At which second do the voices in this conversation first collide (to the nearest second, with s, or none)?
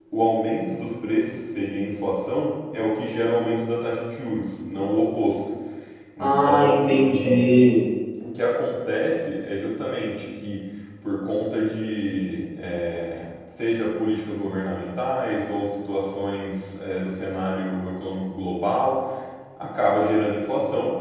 6 s